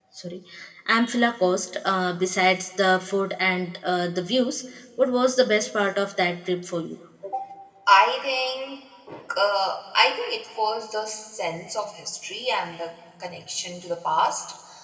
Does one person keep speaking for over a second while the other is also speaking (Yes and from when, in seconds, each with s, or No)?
No